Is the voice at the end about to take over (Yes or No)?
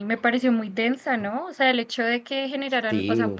No